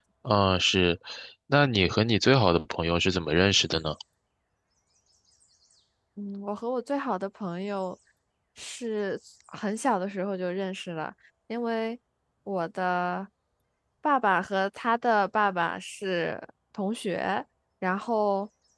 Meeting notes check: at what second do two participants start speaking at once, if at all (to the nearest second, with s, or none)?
none